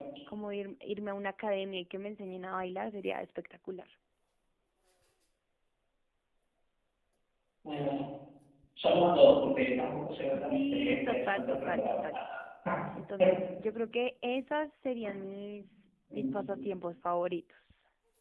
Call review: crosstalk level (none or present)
present